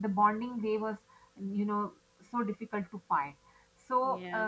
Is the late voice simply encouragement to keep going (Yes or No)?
Yes